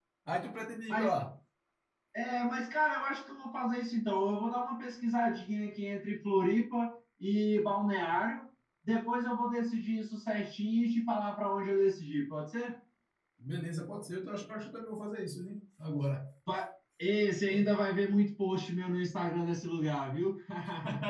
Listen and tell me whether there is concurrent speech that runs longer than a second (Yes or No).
No